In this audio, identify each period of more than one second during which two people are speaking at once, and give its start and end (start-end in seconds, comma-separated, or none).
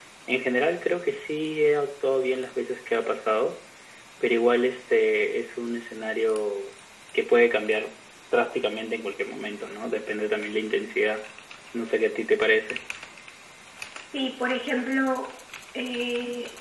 none